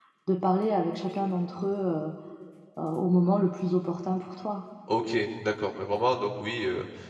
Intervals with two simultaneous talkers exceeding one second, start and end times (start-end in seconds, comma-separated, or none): none